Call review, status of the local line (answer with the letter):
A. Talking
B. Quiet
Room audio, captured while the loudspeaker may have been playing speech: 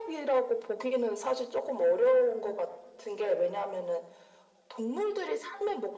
B